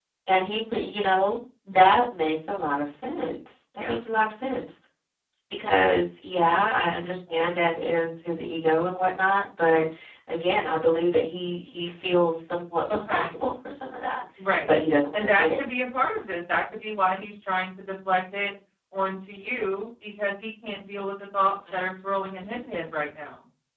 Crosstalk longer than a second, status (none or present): none